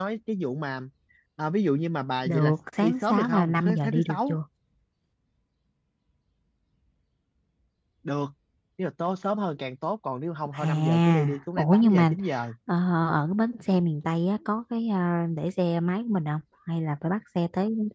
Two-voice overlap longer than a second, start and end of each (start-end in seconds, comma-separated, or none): 2.2-4.4, 10.5-12.1